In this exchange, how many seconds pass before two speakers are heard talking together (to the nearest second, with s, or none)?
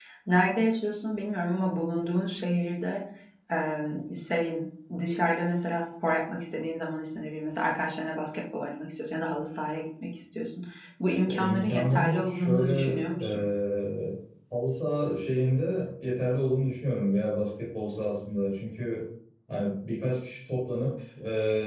11 s